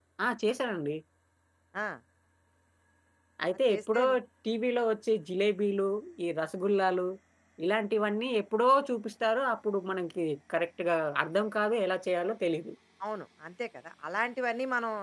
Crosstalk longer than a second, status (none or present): none